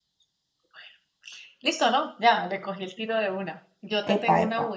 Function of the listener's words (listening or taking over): listening